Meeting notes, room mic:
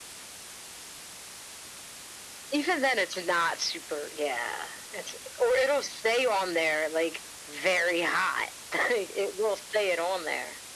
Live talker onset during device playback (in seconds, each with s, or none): none